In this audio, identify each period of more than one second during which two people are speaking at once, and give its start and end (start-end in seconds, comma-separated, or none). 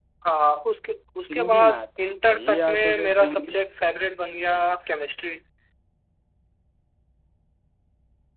2.3-3.5